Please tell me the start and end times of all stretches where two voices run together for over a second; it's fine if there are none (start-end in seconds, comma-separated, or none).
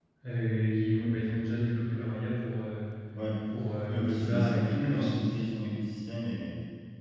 3.9-5.3